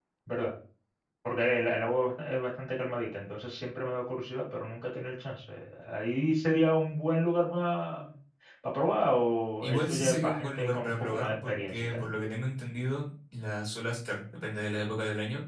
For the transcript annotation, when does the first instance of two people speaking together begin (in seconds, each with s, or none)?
9.6 s